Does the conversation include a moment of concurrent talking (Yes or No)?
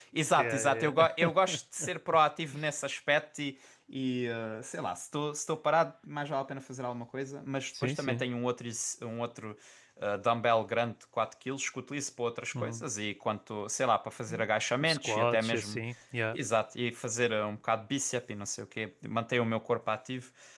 Yes